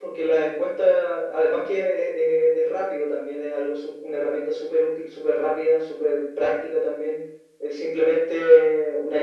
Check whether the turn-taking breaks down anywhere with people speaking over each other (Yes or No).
No